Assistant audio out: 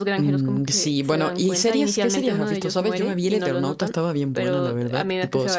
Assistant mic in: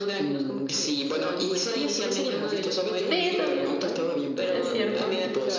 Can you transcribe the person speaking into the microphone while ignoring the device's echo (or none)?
Sí, también, es cierto.